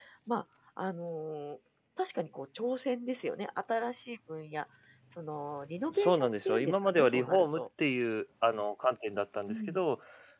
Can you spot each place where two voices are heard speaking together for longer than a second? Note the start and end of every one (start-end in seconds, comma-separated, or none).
5.9-7.6